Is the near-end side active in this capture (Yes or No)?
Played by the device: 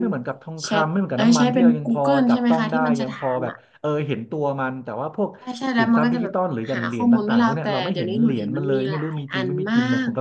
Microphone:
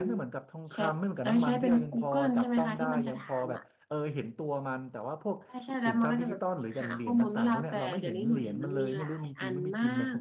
No